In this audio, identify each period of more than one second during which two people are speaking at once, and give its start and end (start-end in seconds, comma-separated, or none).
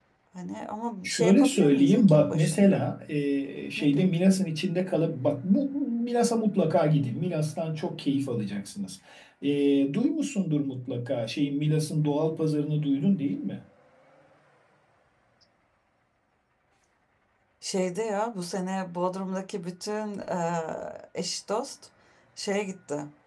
1.0-2.8